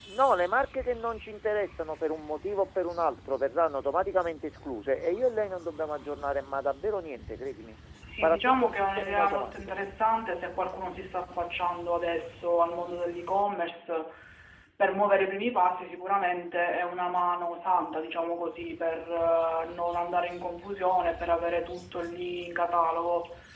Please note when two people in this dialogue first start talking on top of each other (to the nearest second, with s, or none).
8 s